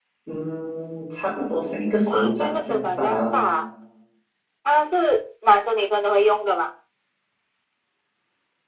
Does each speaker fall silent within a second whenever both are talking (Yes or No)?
No